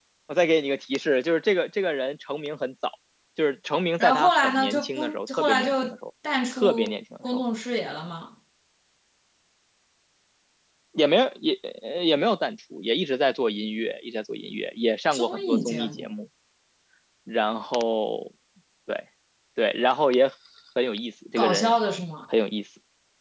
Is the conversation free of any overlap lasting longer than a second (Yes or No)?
No